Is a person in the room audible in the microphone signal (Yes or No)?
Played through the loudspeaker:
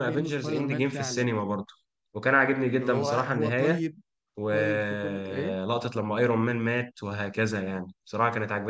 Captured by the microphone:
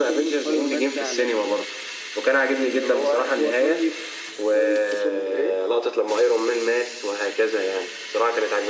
No